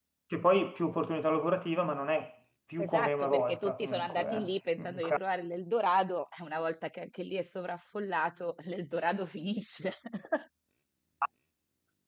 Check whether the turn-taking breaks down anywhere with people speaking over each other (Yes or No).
Yes